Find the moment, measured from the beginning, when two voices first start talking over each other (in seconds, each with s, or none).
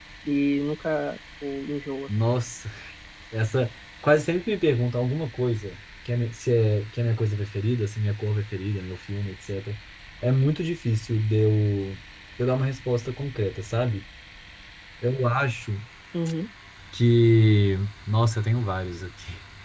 none